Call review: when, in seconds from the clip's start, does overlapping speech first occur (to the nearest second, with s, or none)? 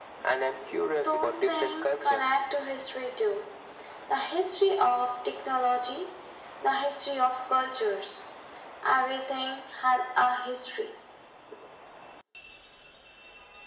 1 s